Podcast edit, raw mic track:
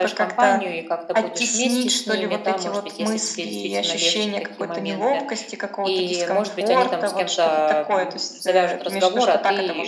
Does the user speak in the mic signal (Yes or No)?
Yes